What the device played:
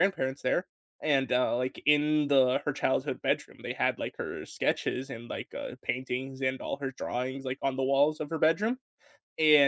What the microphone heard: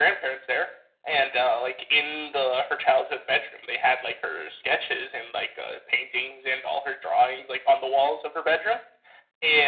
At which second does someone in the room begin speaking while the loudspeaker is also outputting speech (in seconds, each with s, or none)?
none